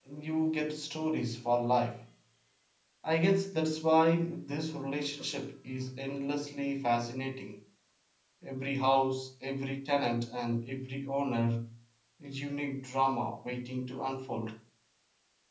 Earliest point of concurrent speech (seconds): none

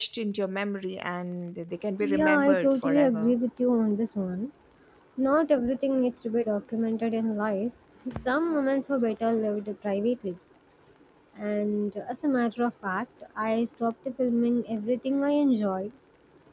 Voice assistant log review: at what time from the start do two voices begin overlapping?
2 s

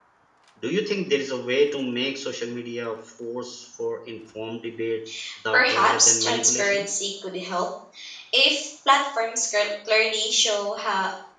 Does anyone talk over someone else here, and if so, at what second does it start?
6 s

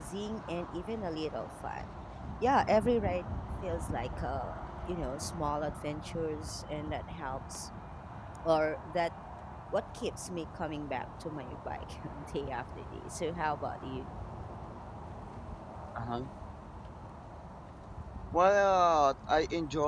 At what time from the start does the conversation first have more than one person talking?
none

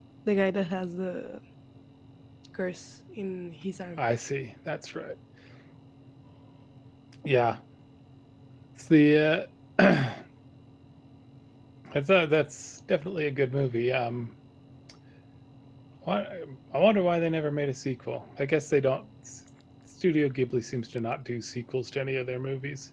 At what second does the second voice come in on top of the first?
none

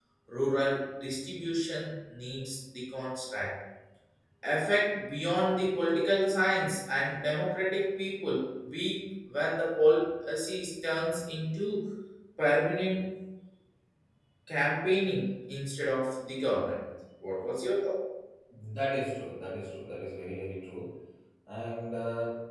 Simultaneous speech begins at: none

